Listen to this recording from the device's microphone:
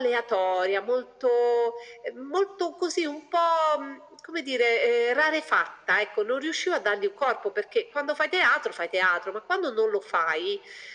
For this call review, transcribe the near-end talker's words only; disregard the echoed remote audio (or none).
none